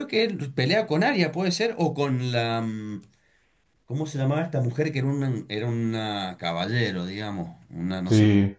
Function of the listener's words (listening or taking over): taking over